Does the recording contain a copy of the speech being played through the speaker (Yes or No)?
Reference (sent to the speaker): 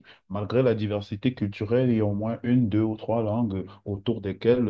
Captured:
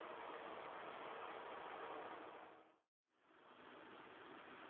No